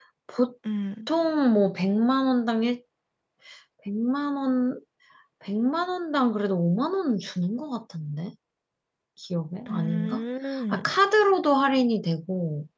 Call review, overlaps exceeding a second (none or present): none